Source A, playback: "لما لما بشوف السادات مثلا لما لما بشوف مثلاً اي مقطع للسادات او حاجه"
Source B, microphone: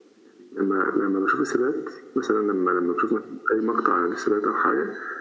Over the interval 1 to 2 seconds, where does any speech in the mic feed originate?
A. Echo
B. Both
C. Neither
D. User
A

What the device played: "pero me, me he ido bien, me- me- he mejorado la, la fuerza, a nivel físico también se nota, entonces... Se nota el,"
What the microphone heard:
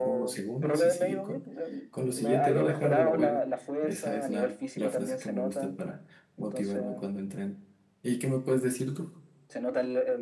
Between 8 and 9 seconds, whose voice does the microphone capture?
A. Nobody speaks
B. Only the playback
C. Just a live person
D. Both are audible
C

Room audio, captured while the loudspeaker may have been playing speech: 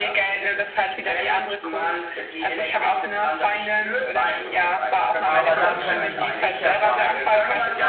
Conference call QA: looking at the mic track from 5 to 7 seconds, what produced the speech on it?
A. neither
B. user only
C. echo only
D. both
D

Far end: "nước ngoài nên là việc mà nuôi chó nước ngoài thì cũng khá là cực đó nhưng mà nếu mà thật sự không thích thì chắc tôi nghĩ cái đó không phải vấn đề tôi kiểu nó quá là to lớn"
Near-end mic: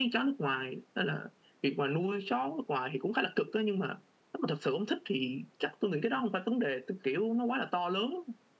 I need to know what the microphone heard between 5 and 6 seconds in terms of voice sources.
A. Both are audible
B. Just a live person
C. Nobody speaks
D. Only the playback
D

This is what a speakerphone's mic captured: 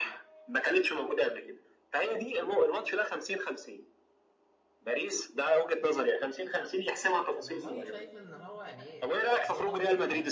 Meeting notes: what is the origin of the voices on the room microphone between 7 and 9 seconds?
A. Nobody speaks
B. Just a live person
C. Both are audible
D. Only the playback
C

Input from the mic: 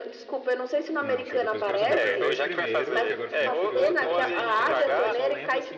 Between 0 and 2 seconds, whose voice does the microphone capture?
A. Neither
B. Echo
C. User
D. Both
D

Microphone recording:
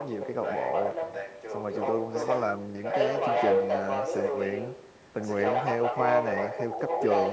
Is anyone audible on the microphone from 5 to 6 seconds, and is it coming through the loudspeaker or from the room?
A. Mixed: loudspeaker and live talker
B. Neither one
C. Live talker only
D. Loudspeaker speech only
A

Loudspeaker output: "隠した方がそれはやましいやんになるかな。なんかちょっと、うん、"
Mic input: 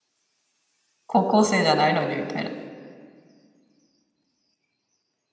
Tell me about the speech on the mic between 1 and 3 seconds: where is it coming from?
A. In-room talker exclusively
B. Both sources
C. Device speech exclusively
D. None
A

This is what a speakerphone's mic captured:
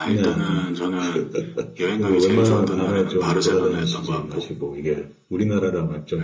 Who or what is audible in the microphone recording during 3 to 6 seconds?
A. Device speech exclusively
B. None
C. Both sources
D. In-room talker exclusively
C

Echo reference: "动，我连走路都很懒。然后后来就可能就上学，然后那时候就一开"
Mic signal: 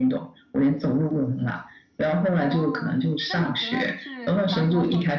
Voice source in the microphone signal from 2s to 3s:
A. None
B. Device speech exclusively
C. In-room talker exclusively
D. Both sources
D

